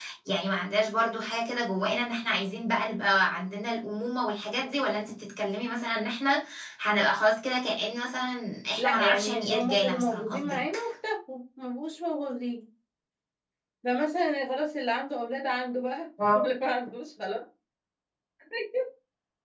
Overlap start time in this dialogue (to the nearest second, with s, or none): 9 s